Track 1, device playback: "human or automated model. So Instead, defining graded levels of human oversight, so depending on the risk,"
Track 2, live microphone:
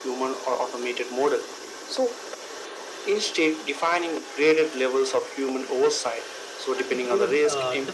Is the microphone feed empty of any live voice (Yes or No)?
No